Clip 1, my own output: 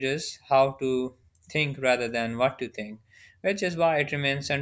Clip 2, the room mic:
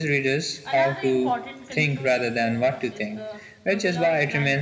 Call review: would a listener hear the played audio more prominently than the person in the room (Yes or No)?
Yes